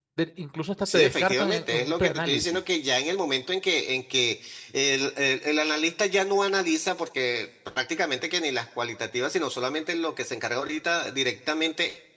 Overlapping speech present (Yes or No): Yes